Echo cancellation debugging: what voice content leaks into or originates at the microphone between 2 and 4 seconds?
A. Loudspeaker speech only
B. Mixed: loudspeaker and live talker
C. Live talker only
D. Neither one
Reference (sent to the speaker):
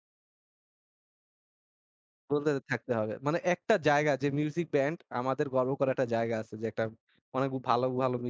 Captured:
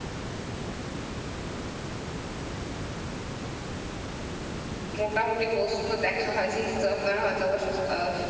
D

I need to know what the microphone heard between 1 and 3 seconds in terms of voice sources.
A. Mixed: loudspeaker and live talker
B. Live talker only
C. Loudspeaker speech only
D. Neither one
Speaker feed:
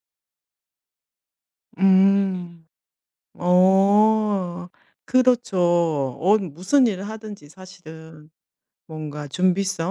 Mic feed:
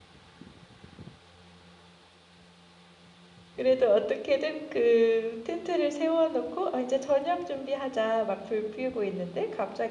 D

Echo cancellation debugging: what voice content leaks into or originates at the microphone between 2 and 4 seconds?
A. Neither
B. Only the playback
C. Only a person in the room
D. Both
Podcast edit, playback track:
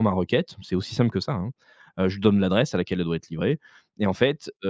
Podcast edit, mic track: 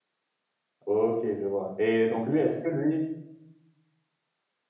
C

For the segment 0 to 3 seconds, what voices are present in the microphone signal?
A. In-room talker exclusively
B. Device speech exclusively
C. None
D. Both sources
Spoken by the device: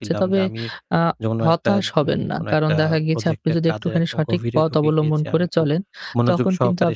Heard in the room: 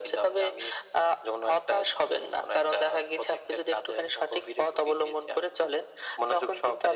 B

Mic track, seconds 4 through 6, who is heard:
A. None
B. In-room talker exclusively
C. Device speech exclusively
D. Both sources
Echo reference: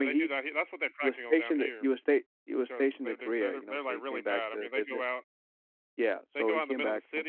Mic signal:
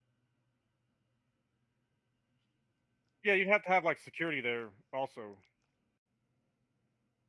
B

